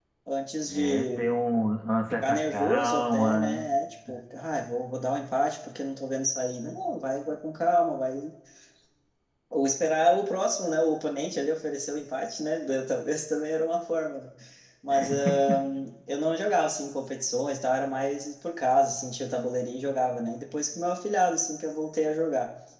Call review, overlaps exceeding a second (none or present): present